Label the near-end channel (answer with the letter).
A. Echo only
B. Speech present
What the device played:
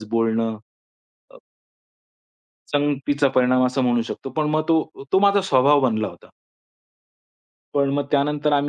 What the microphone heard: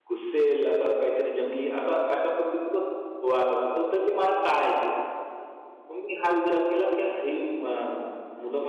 B